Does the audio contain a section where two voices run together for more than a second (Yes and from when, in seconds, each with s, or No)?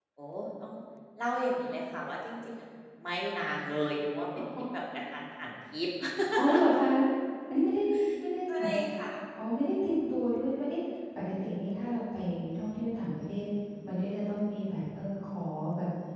No